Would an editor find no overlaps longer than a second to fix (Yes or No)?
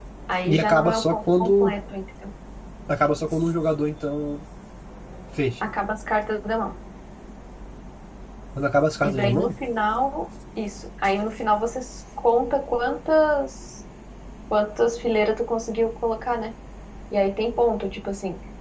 No